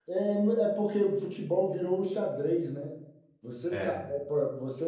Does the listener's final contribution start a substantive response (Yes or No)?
No